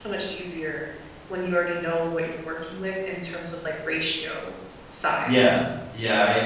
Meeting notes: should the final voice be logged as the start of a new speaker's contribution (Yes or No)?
Yes